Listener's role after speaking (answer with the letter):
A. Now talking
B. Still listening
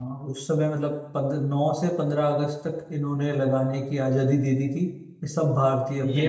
B